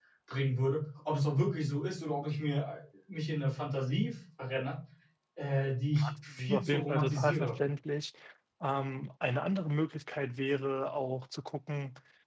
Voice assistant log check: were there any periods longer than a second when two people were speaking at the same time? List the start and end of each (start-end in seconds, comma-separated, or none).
5.9-7.5